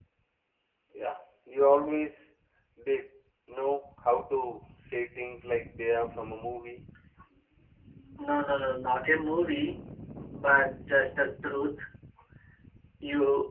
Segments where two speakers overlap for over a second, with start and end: none

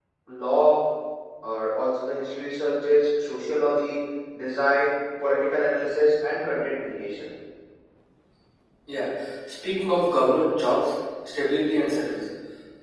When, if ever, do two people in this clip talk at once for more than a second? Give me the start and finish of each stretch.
none

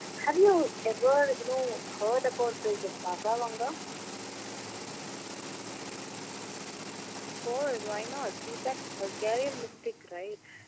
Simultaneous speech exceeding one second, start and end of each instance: none

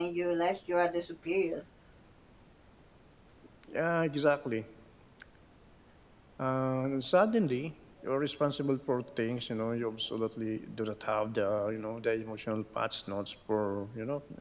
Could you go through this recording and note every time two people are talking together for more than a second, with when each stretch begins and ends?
none

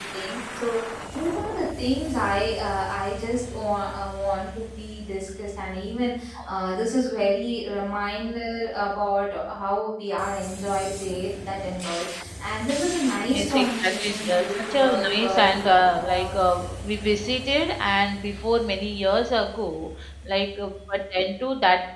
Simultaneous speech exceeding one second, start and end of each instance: 13.3-16.3

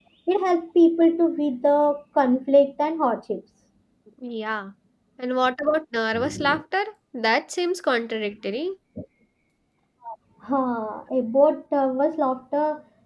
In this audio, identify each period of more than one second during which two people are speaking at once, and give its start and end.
none

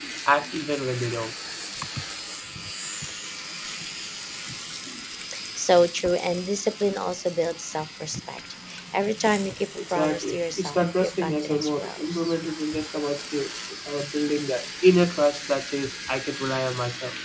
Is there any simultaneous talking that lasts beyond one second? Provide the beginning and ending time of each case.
9.8-12.3

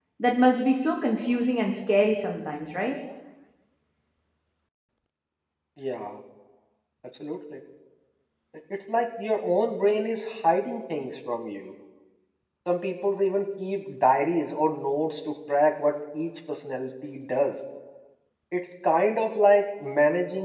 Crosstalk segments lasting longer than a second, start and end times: none

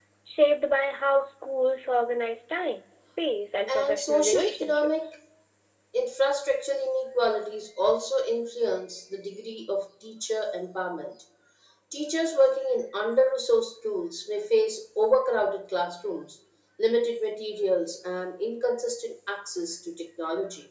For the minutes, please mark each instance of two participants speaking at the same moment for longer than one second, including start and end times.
3.7-5.1

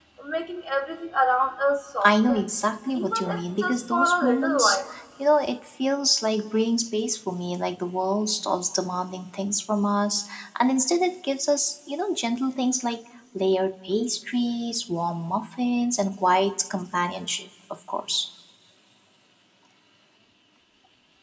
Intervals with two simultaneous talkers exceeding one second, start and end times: 3.0-4.8

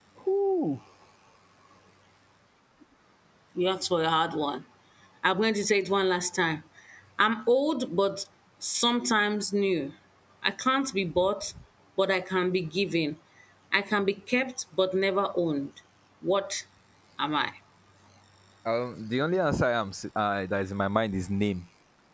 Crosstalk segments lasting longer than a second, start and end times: none

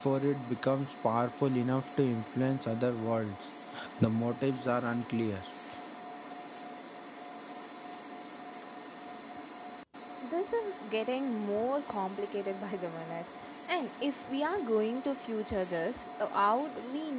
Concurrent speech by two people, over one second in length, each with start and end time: none

